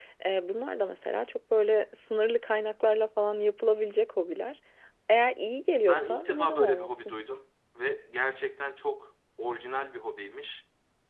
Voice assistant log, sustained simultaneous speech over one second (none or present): present